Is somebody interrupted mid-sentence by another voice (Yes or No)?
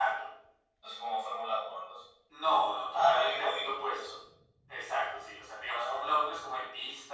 Yes